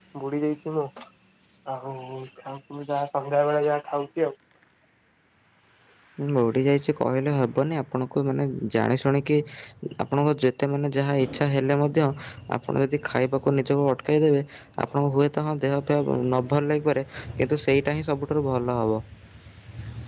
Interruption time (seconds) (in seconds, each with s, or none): none